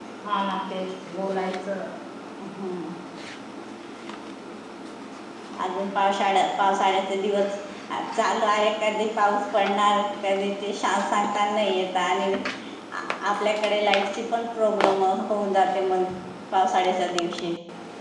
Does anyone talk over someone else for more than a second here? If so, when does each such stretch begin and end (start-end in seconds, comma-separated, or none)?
none